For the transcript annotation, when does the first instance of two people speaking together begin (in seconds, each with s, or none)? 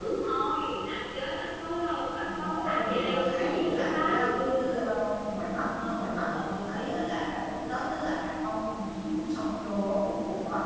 2.2 s